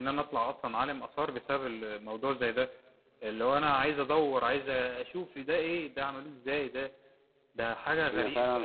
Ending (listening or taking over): taking over